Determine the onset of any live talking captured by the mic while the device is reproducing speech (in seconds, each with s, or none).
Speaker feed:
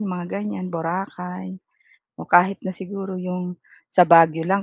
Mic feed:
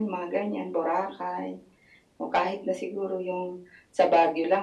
none